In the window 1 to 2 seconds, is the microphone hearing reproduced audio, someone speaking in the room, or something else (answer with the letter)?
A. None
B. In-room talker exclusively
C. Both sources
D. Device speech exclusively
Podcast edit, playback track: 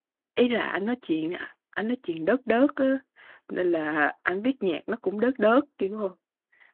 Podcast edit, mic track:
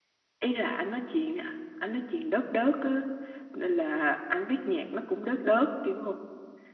D